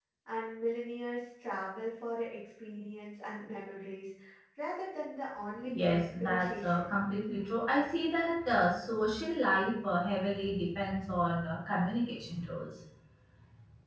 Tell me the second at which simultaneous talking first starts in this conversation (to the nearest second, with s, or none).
6 s